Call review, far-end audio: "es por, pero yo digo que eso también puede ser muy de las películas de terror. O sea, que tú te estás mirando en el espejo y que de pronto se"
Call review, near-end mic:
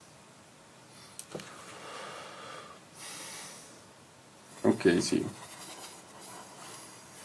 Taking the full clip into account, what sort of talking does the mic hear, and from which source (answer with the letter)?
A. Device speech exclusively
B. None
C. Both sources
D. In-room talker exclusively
D